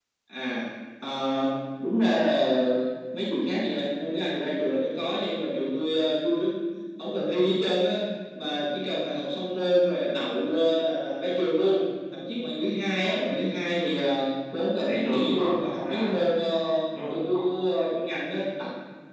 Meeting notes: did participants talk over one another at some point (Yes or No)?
Yes